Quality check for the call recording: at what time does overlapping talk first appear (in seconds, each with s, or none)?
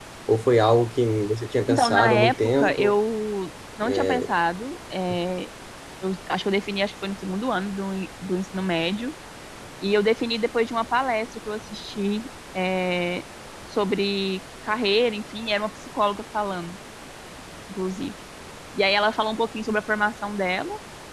1.7 s